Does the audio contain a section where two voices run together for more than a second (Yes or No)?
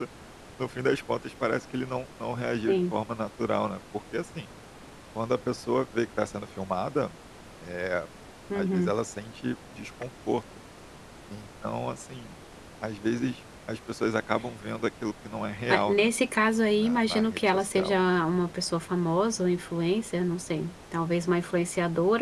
Yes